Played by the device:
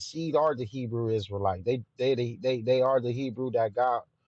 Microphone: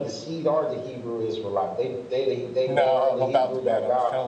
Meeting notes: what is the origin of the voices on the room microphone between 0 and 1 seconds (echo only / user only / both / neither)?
echo only